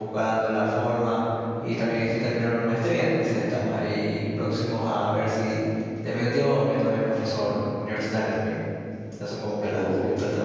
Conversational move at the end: listening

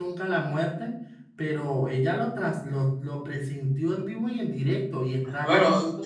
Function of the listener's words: taking over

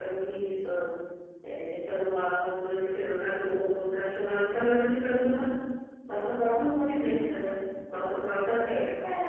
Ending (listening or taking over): taking over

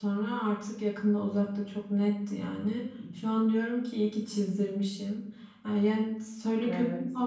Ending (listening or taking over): listening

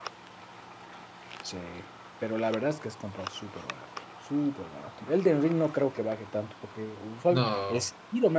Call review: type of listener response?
listening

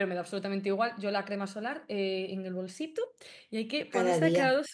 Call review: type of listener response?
listening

